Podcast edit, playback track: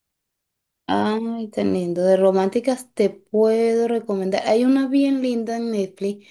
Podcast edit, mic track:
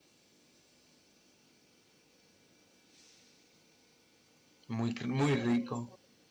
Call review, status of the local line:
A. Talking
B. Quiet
A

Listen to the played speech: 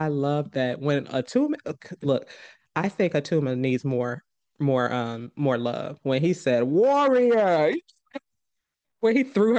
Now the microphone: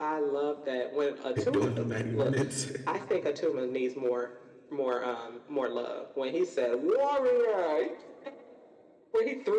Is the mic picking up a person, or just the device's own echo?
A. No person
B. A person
B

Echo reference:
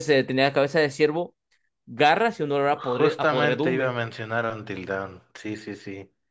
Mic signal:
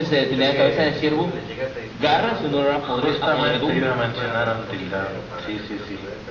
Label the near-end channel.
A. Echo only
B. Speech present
B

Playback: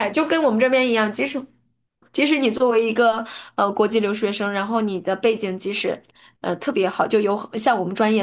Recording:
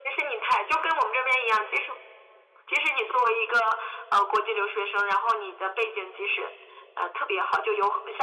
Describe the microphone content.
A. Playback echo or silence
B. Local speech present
A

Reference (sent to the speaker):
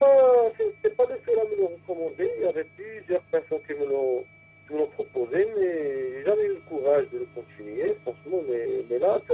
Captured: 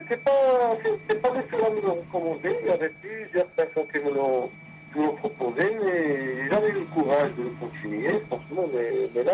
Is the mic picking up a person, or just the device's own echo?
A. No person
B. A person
A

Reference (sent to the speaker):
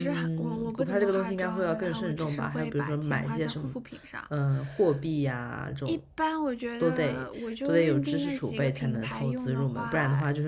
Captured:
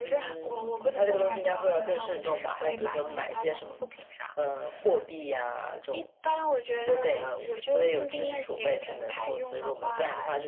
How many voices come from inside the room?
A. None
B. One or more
B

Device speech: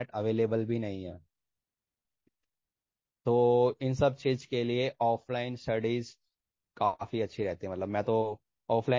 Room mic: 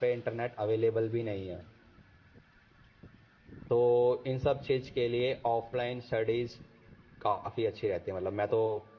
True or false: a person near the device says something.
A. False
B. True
A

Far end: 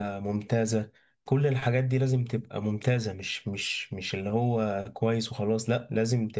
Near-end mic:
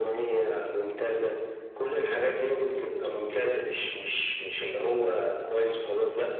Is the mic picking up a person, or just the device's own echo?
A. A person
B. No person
B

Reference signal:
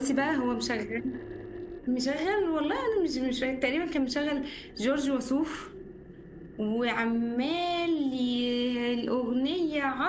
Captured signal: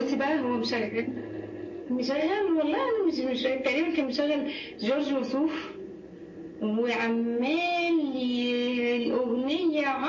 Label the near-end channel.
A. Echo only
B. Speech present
A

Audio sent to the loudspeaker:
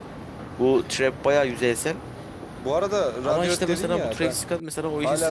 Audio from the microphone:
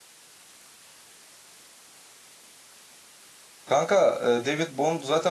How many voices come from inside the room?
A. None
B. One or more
B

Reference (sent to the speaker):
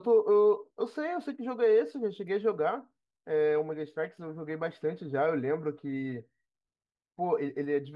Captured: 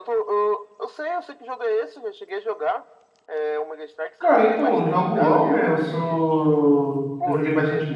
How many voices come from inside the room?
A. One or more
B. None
A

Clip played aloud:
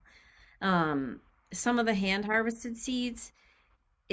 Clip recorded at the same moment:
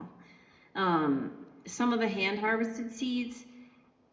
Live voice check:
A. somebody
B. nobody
B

